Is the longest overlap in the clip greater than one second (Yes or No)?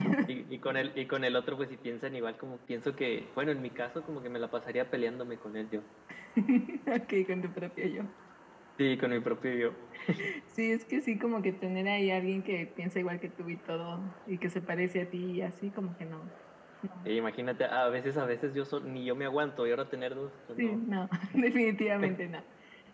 No